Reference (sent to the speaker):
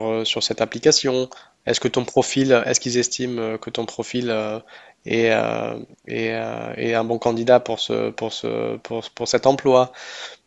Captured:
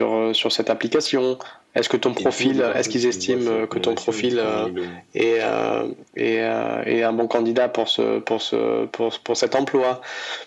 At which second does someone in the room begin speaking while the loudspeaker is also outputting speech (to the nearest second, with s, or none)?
2 s